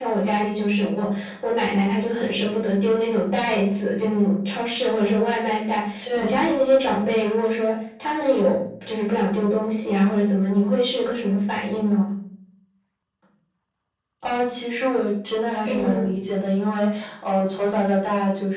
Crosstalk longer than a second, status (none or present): none